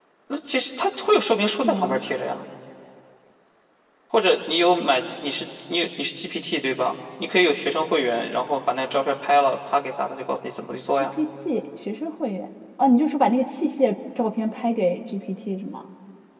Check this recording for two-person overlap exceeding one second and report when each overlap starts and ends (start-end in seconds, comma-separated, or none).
none